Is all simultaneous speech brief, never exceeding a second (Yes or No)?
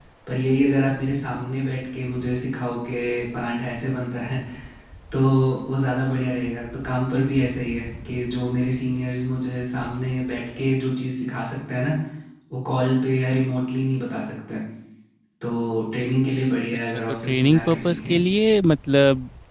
No